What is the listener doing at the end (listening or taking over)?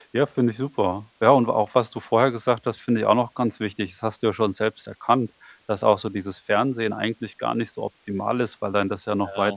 listening